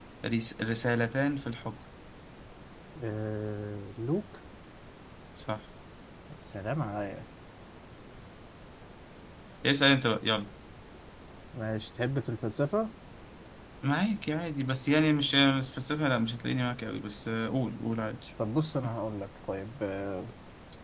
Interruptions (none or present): none